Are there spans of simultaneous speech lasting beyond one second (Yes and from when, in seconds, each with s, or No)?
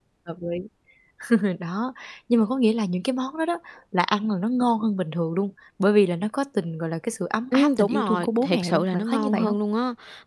Yes, from 7.5 s